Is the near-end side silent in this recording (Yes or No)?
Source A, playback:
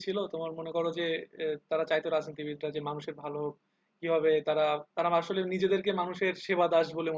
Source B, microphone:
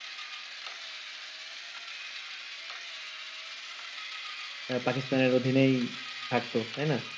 No